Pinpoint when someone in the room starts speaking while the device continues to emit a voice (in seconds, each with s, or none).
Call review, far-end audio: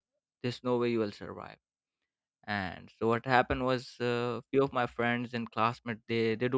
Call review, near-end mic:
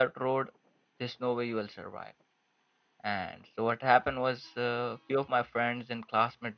none